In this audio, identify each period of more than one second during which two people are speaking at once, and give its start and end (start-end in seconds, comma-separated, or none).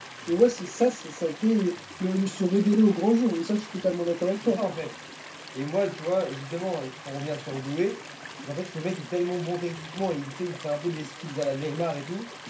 none